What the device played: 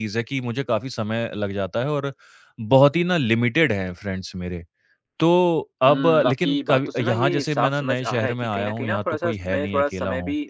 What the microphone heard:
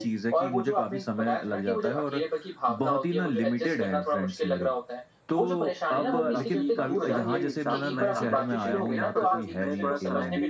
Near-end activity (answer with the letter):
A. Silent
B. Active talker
B